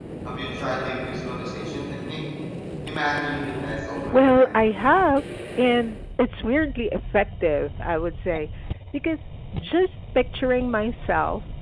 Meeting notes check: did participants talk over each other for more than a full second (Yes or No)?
No